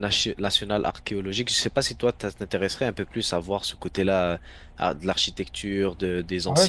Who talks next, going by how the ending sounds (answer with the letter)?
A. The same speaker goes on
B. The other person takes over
B